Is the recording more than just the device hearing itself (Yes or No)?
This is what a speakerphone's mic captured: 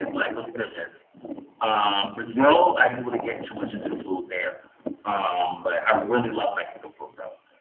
No